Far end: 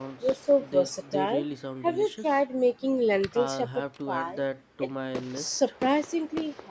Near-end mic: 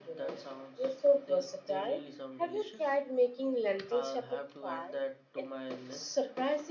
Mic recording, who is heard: echo only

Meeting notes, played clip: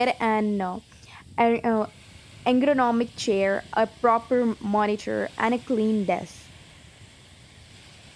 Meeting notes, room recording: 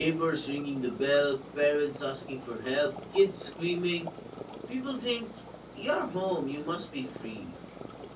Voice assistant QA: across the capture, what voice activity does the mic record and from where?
user only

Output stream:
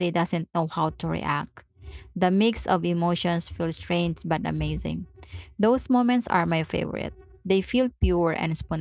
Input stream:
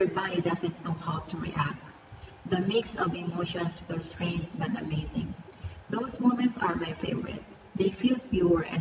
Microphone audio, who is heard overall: echo only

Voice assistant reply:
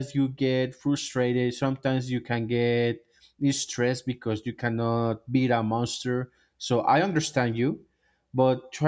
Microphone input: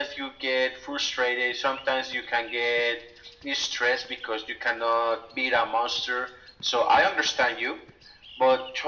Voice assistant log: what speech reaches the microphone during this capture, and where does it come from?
echo only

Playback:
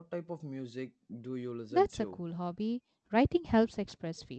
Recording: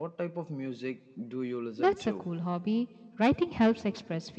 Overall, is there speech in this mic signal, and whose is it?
echo only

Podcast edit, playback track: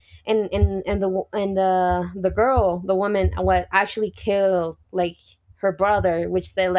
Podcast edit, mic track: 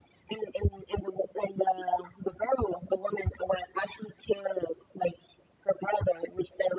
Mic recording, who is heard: echo only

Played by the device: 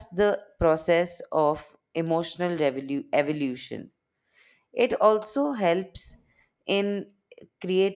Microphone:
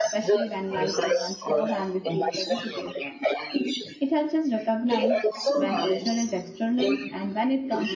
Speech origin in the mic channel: both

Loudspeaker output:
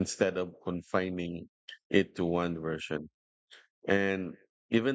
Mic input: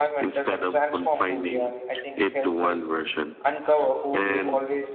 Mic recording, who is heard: both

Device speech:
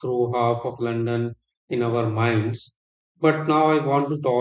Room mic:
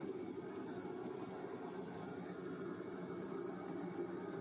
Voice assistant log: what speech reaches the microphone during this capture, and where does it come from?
neither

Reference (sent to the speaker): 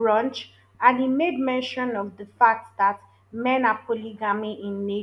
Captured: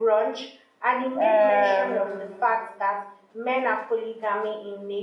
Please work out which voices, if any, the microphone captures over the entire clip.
both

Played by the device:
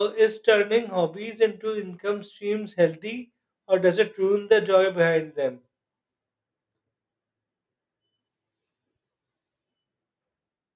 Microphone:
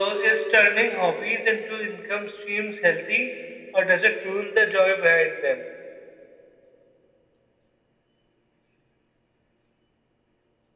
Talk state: echo only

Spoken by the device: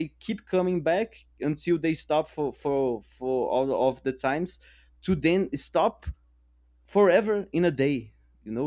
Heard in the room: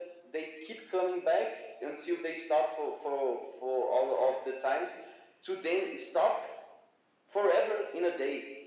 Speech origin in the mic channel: echo only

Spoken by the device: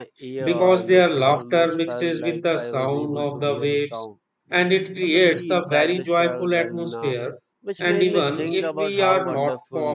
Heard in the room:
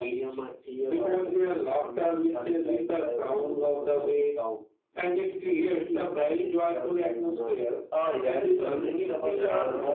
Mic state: both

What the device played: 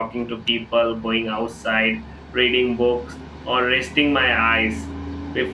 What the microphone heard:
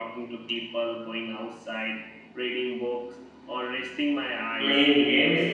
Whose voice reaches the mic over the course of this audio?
both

